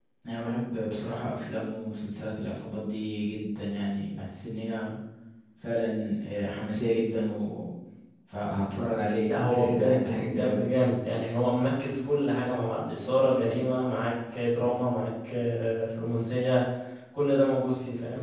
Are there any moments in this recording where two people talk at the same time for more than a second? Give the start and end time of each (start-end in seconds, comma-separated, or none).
9.3-10.6